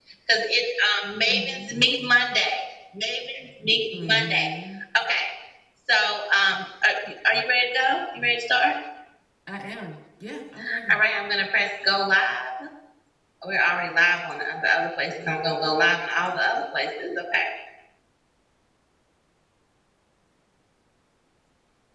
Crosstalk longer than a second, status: none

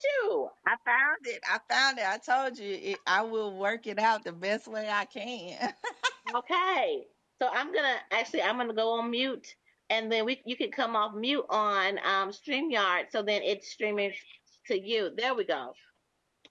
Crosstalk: none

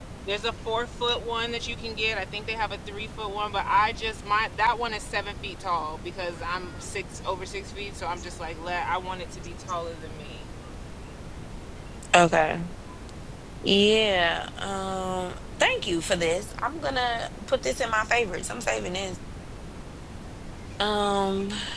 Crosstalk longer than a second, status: none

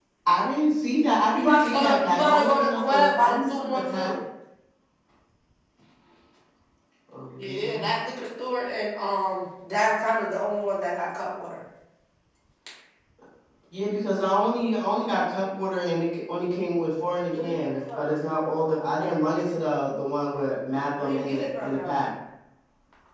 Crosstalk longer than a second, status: present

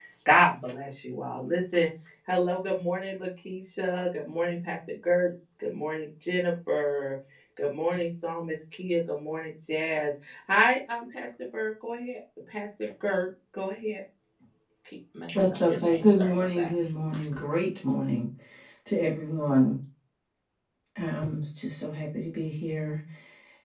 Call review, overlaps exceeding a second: present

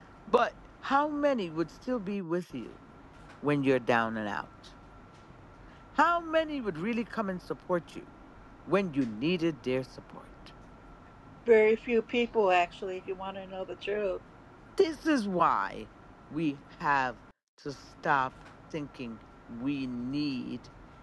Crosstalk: none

